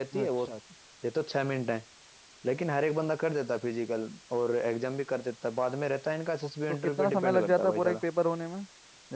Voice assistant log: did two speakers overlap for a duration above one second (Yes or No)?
Yes